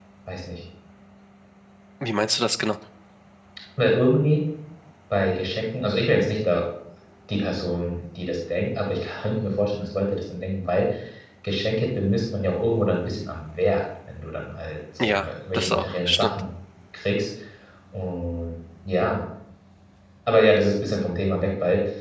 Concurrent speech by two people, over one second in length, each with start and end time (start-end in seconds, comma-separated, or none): 15.0-16.4